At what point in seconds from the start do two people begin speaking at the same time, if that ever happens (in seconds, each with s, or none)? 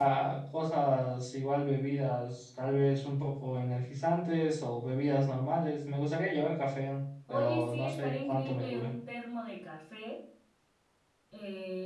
7.3 s